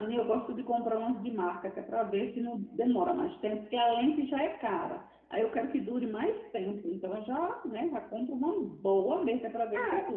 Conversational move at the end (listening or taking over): taking over